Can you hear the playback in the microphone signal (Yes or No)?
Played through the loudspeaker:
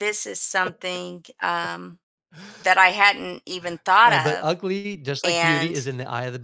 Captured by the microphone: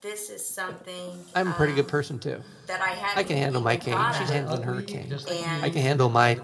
Yes